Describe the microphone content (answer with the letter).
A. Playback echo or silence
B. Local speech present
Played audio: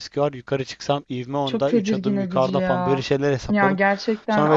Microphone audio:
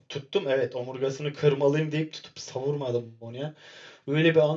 B